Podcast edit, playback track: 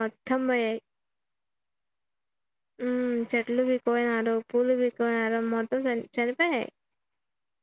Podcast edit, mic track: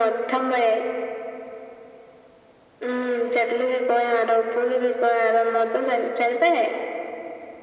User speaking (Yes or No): No